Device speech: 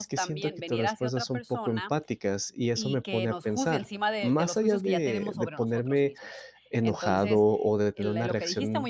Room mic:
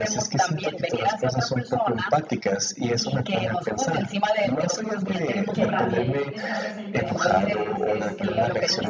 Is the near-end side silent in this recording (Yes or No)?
No